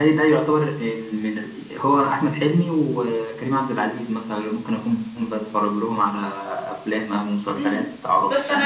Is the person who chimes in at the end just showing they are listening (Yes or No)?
No